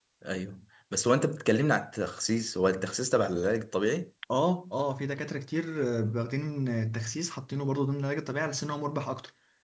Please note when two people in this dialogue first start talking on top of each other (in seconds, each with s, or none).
none